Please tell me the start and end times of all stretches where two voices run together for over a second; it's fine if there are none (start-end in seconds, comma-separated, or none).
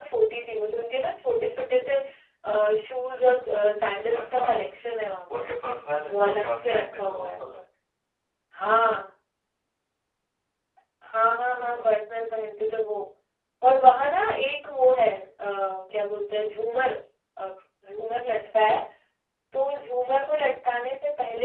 6.1-7.5